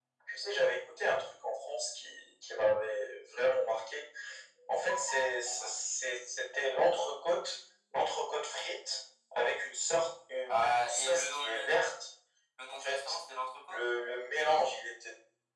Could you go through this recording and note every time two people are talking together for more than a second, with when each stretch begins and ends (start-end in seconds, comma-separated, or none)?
10.5-11.8